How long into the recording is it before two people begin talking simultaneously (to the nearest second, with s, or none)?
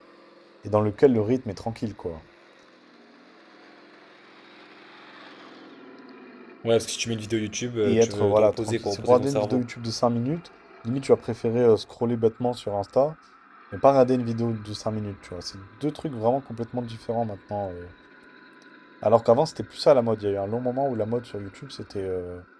8 s